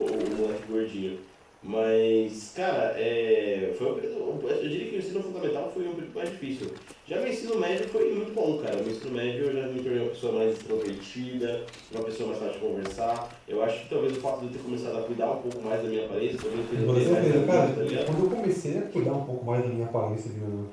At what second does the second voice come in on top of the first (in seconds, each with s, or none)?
16.8 s